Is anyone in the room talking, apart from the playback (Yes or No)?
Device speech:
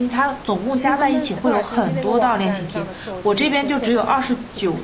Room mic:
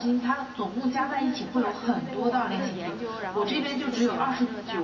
Yes